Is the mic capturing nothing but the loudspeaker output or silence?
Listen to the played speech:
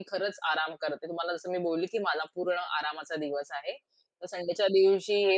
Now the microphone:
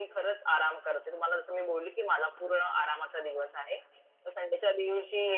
Yes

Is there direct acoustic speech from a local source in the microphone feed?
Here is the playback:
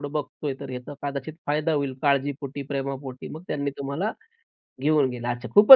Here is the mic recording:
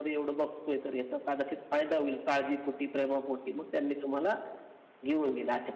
No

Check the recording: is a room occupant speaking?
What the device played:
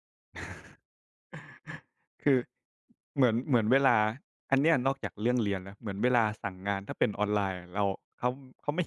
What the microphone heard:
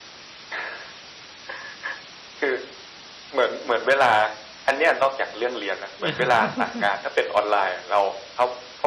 Yes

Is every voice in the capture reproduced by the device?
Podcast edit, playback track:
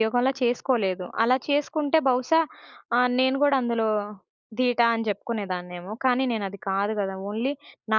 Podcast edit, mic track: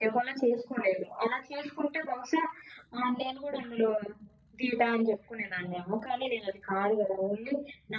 Yes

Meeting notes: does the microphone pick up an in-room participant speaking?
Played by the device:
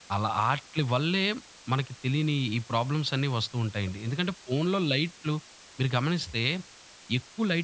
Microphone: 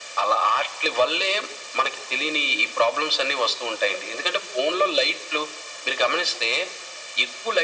No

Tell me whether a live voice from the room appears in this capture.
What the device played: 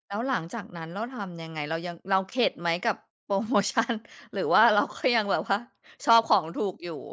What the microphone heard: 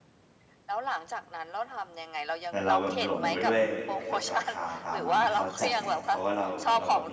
Yes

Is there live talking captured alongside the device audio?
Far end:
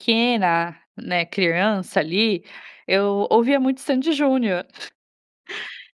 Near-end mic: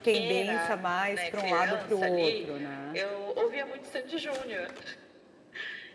Yes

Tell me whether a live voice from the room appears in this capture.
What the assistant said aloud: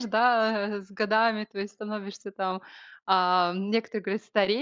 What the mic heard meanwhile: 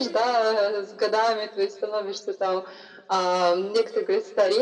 No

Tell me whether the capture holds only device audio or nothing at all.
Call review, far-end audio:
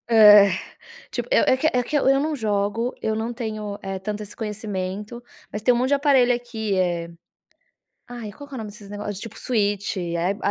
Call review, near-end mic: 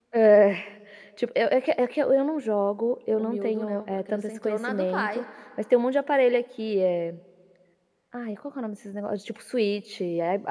No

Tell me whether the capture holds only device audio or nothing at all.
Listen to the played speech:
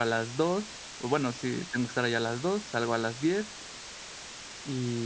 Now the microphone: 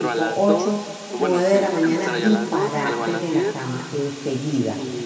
No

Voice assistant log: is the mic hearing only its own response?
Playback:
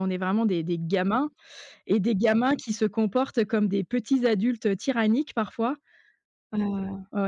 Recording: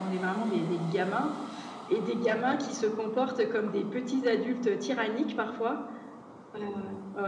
Yes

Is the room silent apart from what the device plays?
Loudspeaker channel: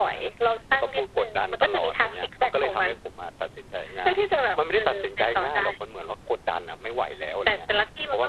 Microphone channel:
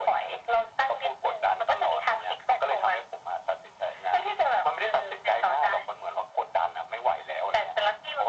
Yes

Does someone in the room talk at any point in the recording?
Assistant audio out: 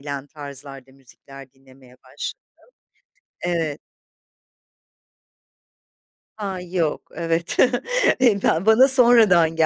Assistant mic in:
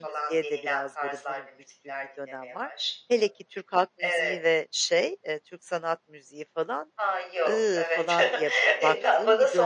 Yes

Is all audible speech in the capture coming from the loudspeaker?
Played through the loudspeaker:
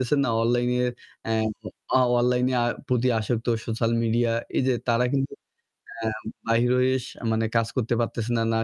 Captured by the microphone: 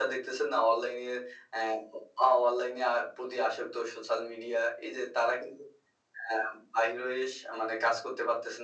Yes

